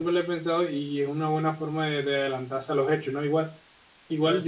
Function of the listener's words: listening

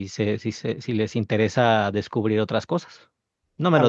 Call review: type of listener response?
taking over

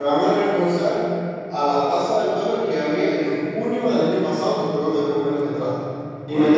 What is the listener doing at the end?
listening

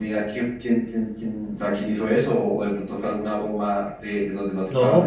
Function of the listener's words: taking over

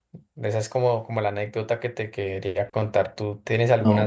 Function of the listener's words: taking over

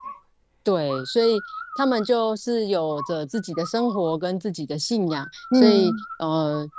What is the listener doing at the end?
listening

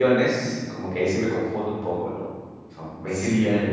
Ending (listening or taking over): listening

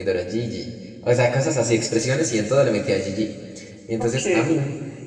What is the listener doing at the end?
listening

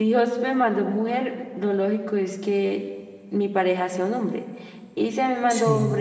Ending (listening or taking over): listening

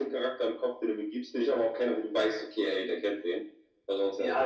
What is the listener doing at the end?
taking over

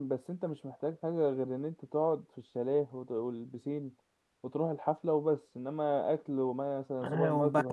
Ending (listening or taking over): taking over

